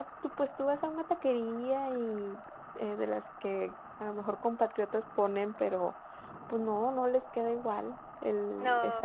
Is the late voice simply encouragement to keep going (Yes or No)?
No